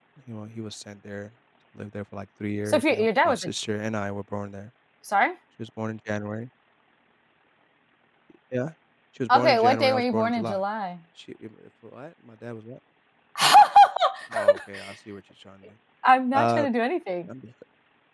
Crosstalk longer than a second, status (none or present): present